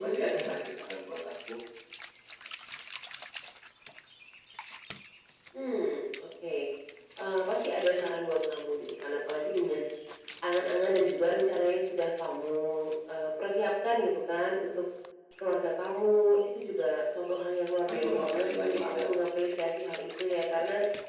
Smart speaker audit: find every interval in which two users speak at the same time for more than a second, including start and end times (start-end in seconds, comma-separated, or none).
17.9-19.1